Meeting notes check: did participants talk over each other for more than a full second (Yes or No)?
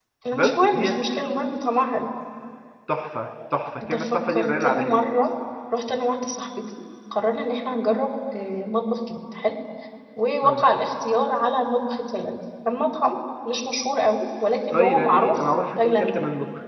Yes